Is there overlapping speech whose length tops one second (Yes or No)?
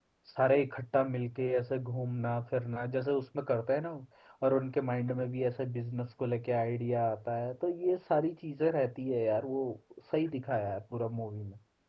No